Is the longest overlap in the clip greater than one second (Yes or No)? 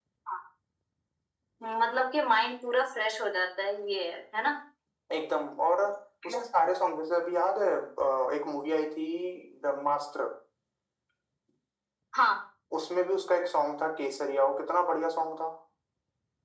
No